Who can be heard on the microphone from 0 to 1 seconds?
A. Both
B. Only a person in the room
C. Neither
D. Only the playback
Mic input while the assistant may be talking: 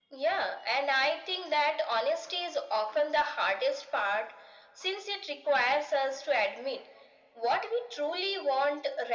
D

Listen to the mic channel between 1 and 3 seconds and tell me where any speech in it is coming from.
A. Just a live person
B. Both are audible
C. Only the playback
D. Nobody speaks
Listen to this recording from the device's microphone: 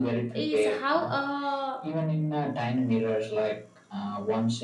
B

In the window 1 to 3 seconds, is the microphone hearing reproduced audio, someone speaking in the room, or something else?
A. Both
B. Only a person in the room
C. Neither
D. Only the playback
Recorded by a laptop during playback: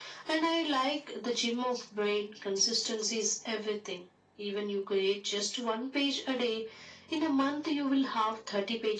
D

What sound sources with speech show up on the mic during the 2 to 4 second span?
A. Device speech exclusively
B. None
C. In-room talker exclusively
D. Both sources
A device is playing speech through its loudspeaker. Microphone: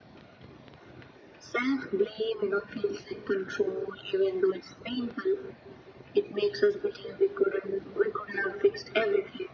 A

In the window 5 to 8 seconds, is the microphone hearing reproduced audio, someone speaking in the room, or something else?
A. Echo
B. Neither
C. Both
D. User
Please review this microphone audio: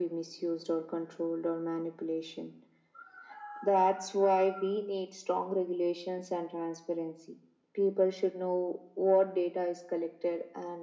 A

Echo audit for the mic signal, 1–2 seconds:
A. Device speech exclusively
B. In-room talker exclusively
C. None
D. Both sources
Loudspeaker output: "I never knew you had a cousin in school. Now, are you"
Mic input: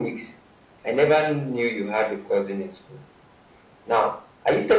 A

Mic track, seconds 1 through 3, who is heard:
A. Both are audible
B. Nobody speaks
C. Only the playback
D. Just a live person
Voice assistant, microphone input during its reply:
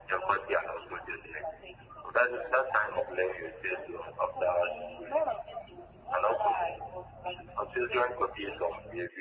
C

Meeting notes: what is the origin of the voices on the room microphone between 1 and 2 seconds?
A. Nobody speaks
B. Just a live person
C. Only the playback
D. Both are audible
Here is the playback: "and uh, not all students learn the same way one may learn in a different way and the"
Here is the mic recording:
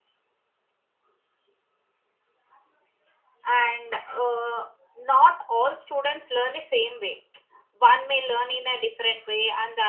A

